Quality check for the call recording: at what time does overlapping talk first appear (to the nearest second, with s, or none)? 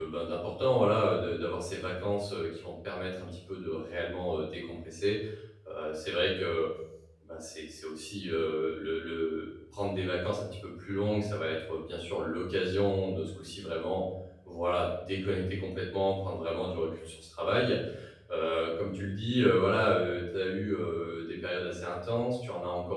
none